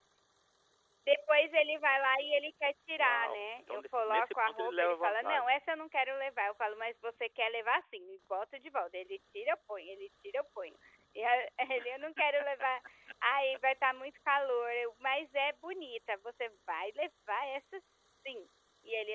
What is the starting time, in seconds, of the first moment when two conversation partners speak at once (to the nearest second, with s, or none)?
3 s